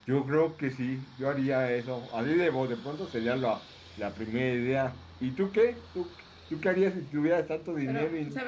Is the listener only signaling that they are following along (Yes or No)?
No